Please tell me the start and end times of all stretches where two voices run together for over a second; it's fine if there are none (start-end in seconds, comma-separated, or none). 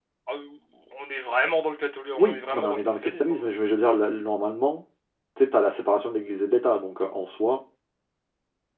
2.2-3.4